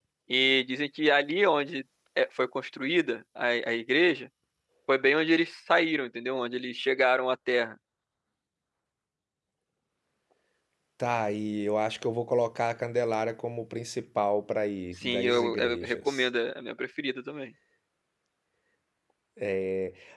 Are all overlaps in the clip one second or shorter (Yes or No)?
No